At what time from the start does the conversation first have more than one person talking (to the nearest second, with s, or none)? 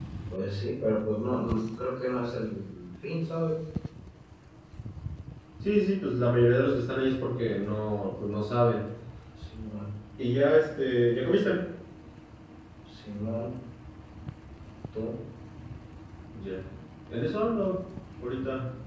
none